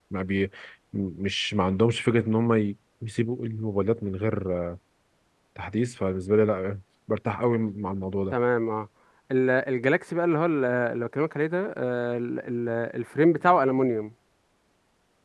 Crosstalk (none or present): none